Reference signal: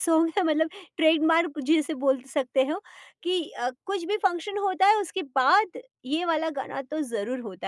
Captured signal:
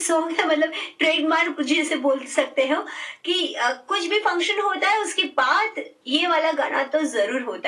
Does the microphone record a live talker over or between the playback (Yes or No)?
No